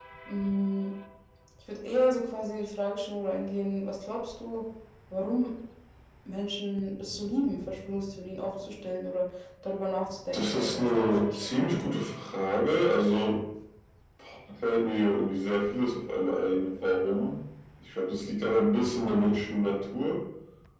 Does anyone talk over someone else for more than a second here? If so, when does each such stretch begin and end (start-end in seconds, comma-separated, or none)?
10.3-12.0